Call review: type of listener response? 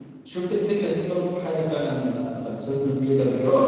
taking over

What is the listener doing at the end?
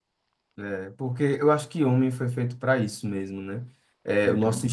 listening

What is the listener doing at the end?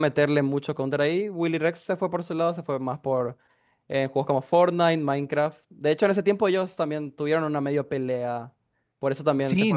taking over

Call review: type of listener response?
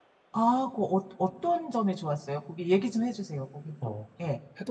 taking over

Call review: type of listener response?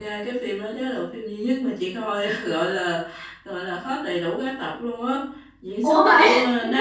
listening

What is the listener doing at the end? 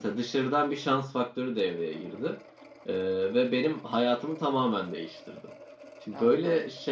listening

